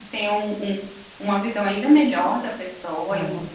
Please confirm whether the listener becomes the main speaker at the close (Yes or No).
No